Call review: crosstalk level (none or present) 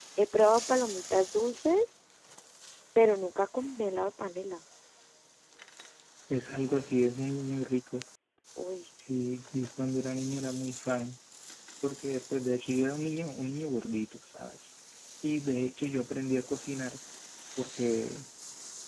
none